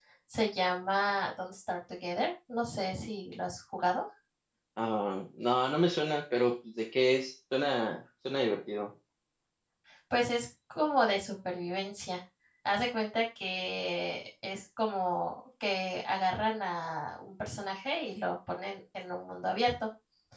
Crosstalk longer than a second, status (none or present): none